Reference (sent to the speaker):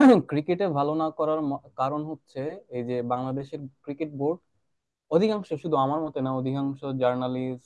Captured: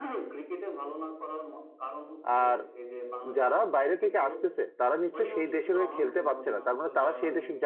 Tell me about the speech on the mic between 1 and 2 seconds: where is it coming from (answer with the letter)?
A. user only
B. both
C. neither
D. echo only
D